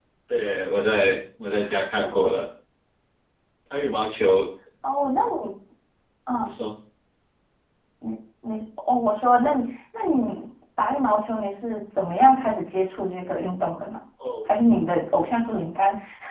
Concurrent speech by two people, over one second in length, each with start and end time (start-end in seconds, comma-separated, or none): none